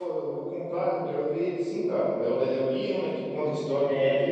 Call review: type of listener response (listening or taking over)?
listening